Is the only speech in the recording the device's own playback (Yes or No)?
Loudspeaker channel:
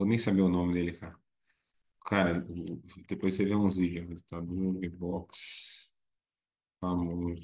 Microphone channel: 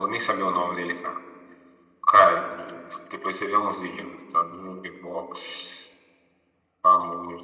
Yes